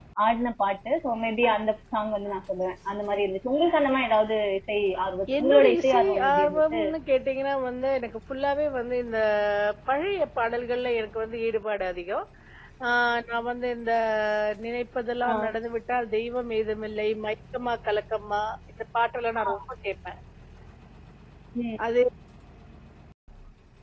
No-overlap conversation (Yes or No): No